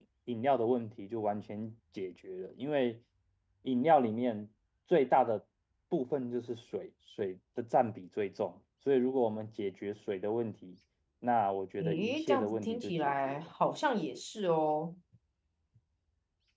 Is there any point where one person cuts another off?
Yes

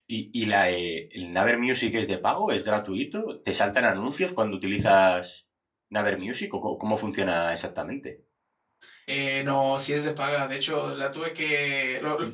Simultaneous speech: No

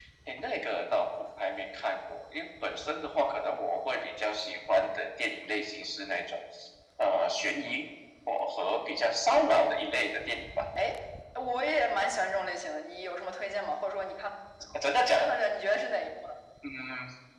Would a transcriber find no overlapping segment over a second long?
Yes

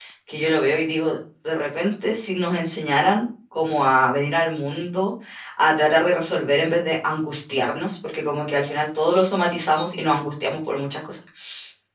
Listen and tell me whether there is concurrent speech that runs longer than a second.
No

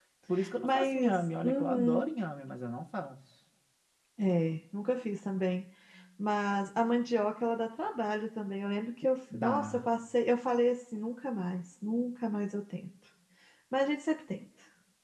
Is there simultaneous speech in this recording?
Yes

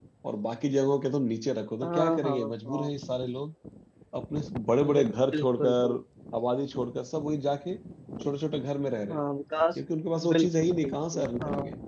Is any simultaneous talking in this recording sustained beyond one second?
Yes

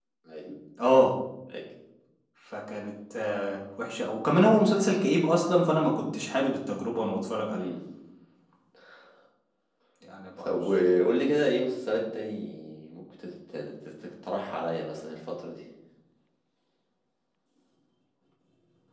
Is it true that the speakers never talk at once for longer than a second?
Yes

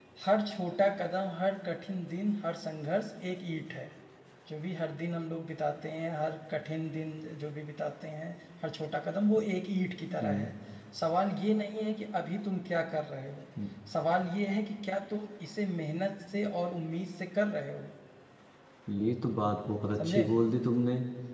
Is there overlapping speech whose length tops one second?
No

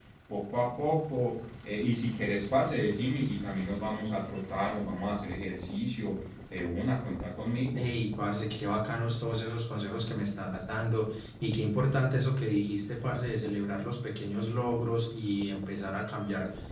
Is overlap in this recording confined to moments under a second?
Yes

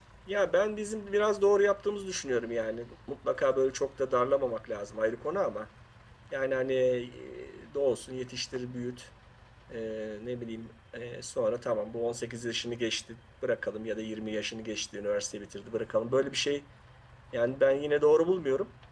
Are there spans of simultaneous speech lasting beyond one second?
No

